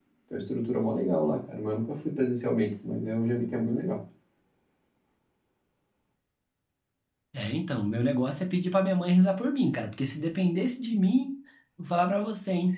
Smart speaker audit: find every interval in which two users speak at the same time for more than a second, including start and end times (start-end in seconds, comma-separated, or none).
none